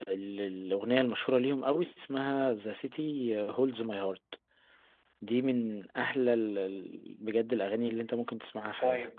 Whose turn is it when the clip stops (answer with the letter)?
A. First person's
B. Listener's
B